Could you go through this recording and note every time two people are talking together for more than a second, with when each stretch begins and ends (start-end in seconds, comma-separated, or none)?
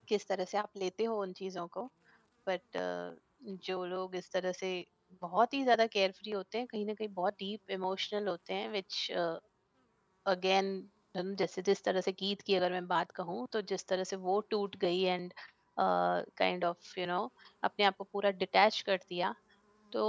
none